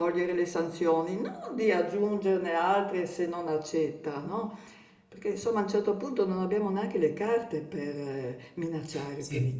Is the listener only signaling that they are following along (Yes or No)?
No